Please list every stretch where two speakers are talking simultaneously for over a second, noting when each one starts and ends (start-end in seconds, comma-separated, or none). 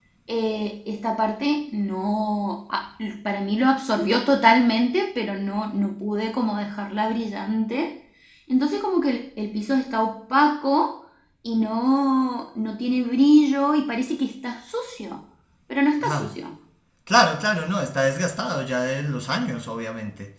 none